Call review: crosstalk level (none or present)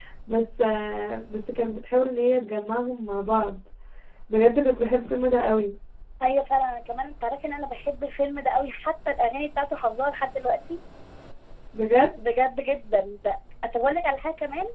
none